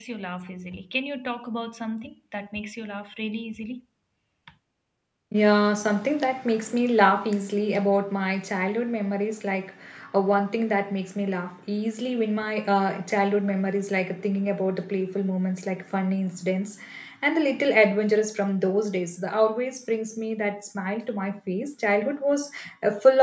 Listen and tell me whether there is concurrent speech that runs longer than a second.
No

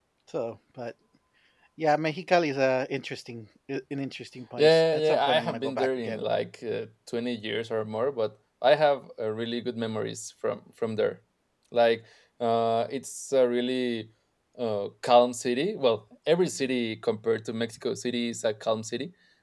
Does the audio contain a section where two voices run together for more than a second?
Yes, from 4.6 s

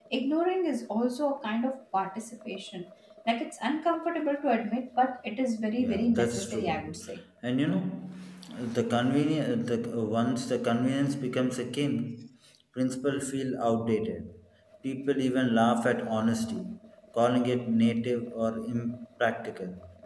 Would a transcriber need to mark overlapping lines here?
Yes, from 5.8 s

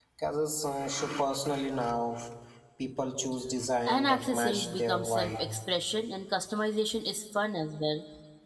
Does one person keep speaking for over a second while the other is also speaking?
Yes, from 3.9 s

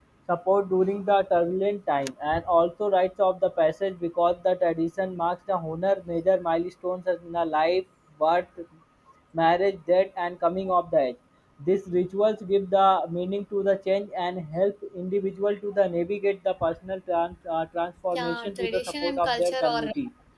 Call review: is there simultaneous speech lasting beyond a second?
Yes, from 18.1 s

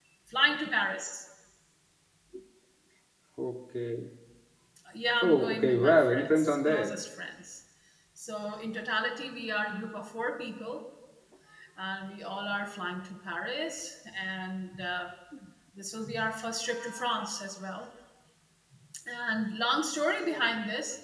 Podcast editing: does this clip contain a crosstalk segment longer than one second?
Yes, from 5.2 s

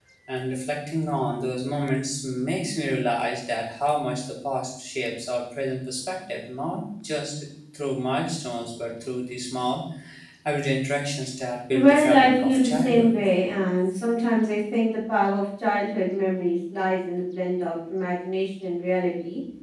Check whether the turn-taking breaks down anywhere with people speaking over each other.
Yes, from 11.7 s

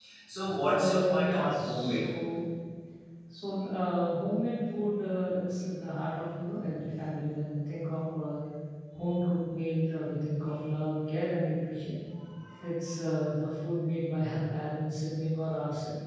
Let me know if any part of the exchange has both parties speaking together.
Yes, from 0.7 s

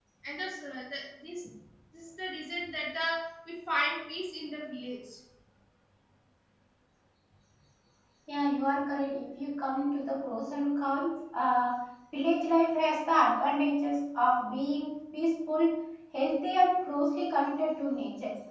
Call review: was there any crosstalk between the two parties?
No

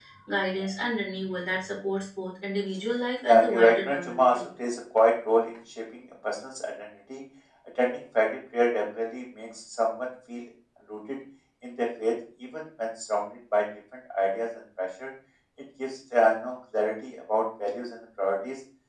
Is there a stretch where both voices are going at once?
Yes, from 3.2 s

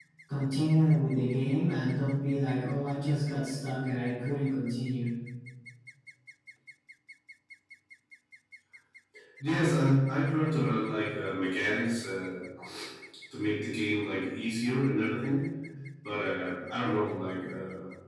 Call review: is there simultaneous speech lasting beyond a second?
No

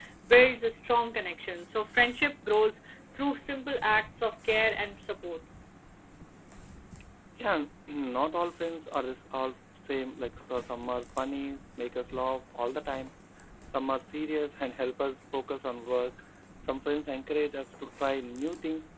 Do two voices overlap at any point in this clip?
No

